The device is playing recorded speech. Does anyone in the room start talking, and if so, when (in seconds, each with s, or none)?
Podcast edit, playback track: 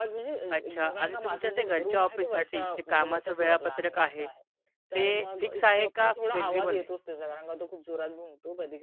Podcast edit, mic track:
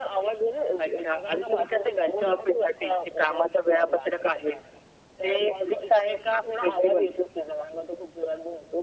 none